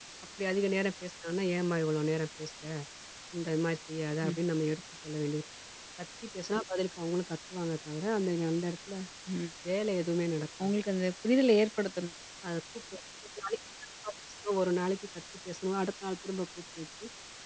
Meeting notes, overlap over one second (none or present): none